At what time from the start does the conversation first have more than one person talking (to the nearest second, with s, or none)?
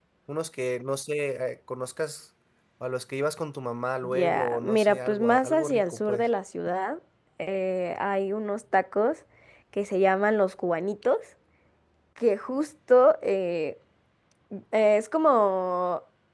4 s